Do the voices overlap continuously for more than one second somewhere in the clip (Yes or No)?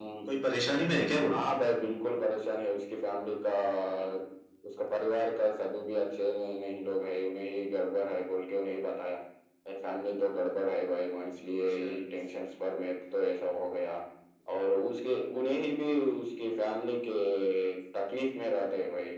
No